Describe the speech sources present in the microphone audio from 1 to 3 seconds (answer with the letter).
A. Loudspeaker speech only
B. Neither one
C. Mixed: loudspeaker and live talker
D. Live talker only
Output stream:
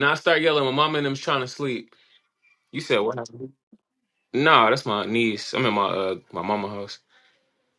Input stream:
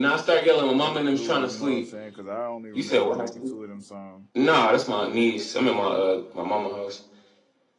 C